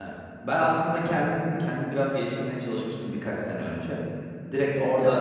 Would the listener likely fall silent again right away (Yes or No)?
Yes